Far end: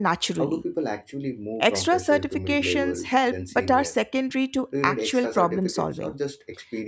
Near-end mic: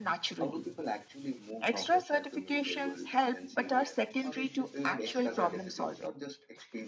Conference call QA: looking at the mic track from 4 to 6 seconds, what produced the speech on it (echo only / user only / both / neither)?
both